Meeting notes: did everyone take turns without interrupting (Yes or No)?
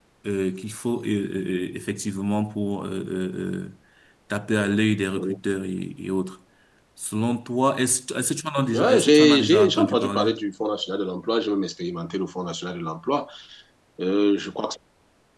No